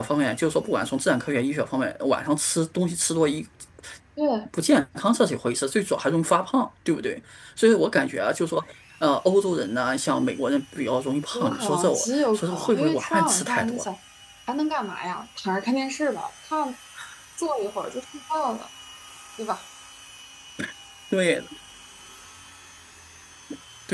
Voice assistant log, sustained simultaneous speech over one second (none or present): present